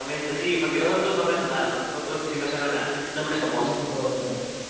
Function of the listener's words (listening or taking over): taking over